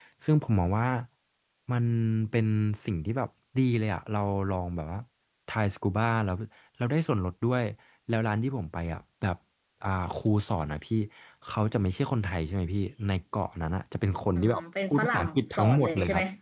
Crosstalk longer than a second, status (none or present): present